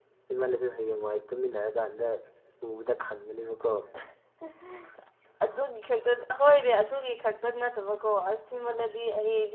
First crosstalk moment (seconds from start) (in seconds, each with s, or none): none